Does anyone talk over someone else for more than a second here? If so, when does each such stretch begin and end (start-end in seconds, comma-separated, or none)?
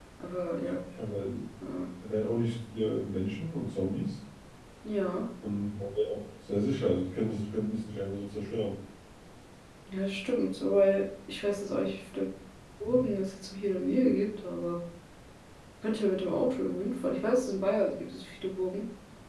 none